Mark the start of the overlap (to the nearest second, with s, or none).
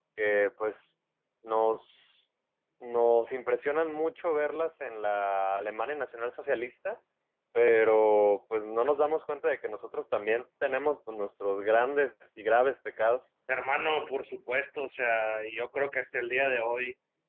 none